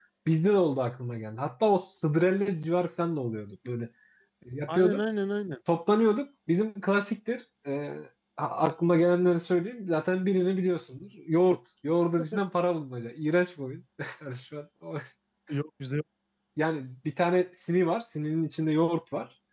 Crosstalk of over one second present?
No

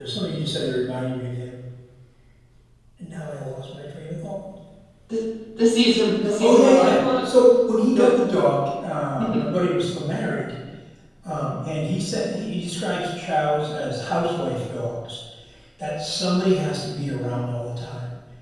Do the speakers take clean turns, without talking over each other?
No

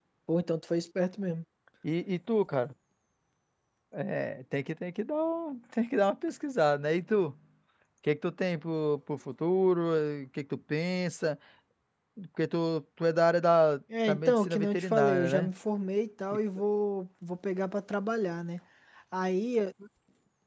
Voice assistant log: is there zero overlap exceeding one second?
No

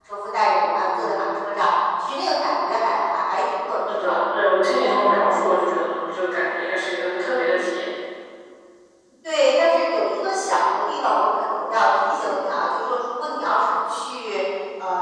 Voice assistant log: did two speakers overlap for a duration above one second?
No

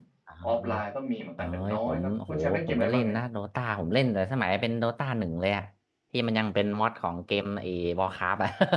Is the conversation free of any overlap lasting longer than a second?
No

